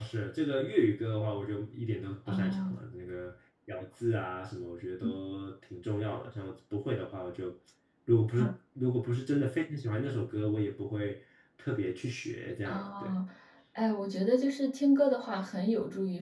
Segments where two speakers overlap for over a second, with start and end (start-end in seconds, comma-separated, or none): none